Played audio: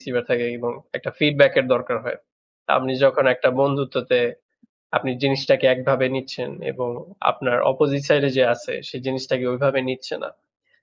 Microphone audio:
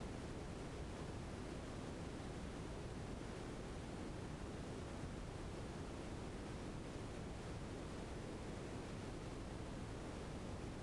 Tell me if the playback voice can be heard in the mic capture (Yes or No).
No